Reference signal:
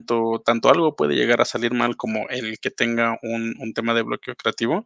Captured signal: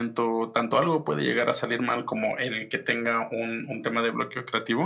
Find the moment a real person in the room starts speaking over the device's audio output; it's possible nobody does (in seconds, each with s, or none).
none